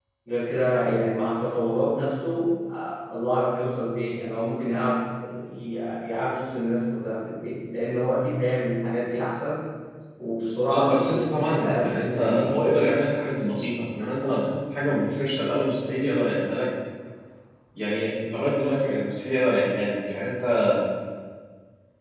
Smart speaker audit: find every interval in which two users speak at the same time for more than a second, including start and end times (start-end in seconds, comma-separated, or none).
10.7-12.6